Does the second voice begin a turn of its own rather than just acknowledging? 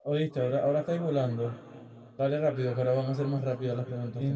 Yes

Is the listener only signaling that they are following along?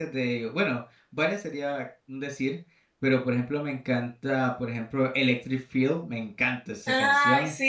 No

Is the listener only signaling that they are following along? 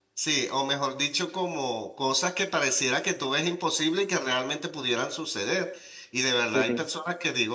Yes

